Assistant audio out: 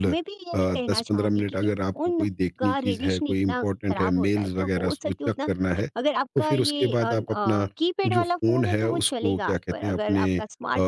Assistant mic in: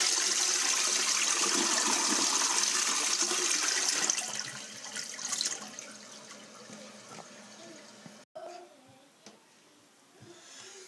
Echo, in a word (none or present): none